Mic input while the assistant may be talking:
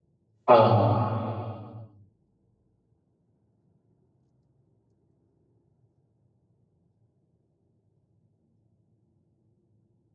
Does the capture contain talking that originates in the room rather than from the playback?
Yes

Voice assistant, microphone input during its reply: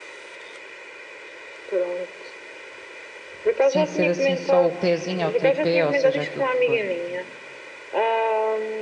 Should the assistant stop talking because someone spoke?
Yes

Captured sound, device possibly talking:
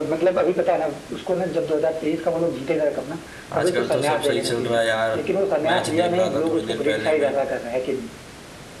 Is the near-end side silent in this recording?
No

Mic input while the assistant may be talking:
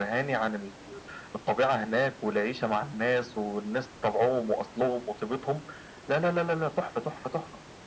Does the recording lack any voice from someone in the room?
Yes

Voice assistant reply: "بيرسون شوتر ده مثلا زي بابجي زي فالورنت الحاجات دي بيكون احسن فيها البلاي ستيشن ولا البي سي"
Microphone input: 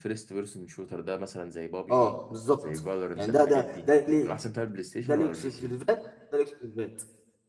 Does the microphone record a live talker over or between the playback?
Yes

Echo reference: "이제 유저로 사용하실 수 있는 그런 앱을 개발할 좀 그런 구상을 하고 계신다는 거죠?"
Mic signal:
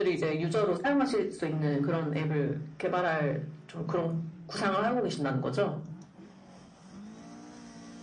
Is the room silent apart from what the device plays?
Yes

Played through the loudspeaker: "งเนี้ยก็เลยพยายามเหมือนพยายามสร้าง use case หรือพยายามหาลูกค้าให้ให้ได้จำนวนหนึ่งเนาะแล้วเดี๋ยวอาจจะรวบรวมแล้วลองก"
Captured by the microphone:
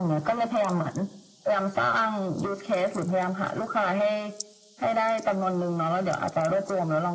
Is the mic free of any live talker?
Yes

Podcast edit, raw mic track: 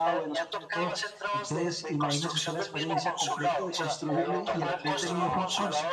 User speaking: Yes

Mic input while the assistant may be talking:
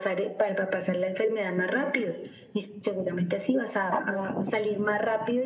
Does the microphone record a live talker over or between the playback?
No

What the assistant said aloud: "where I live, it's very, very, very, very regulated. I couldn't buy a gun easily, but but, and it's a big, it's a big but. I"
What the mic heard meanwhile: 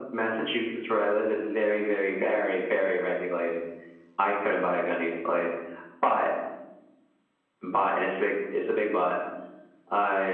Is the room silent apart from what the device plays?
Yes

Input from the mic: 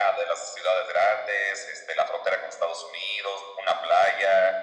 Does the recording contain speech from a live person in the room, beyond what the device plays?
No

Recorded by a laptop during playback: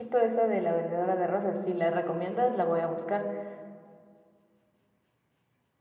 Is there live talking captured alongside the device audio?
Yes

